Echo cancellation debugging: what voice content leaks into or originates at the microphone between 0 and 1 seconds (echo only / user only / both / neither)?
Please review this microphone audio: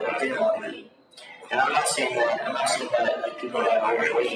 echo only